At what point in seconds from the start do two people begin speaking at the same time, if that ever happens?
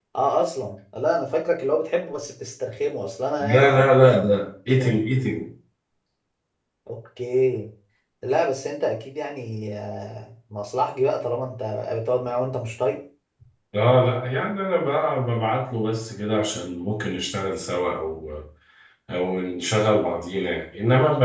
3.4 s

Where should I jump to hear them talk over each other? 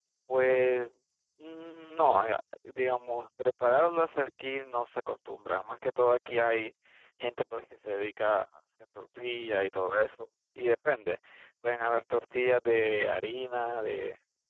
none

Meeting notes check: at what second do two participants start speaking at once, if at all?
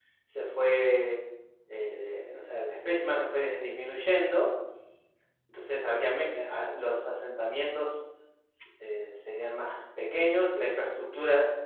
none

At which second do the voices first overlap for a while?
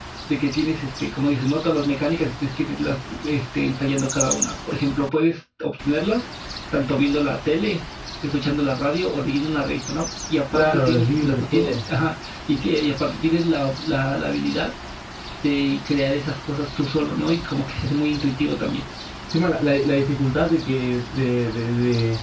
10.5 s

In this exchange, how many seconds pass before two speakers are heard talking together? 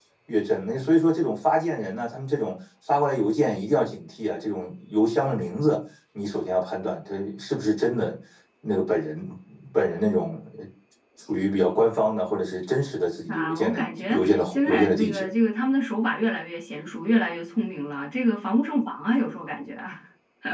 13.3 s

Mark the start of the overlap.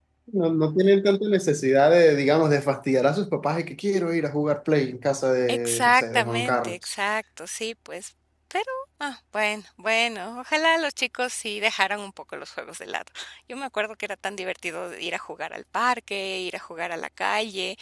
5.5 s

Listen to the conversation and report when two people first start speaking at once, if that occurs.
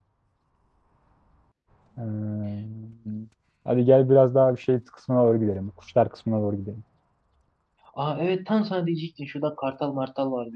none

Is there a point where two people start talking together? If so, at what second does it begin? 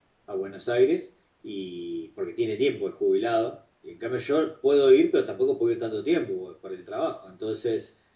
none

